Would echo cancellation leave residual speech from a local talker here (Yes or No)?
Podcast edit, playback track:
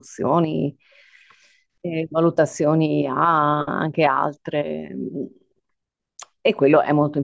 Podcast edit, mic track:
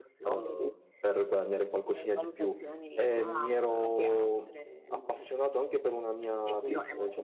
Yes